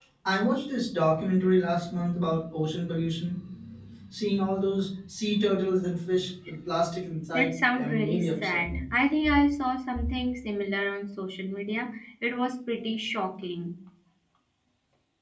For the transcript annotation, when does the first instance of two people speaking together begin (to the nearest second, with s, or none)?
7 s